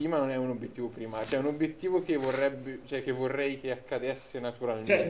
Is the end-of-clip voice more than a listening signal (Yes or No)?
Yes